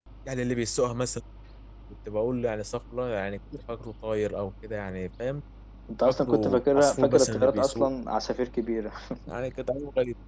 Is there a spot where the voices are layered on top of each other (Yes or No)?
Yes